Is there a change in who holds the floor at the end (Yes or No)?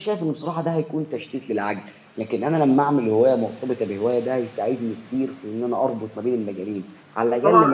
Yes